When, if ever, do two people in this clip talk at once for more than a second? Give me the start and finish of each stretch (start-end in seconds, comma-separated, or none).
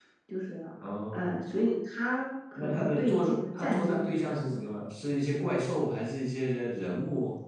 2.6-4.1